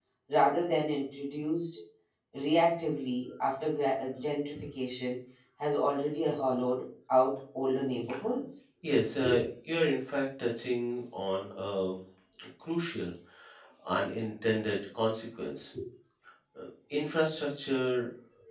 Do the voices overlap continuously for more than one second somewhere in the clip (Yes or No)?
No